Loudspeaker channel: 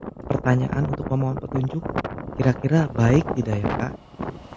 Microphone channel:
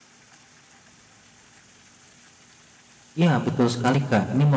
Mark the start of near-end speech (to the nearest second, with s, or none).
3 s